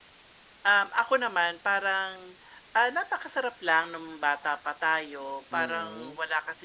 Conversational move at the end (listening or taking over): listening